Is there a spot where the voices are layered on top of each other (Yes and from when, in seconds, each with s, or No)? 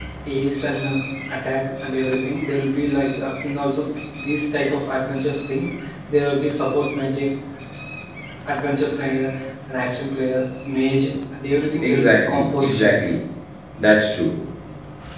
Yes, from 11.8 s